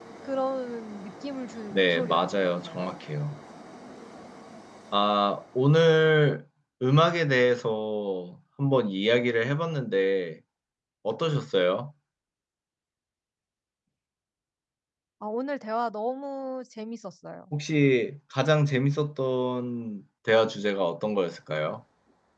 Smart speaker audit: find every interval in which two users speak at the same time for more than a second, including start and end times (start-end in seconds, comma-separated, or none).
1.7-3.0